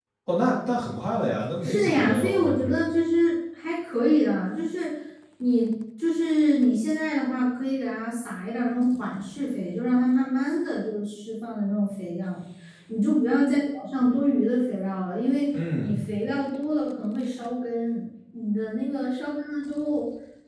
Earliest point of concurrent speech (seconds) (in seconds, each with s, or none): 1.6 s